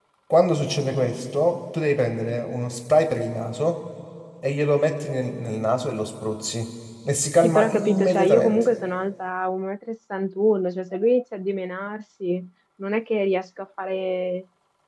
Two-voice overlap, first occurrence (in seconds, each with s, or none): 7.4 s